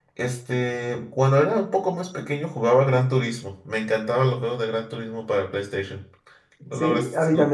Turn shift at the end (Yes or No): Yes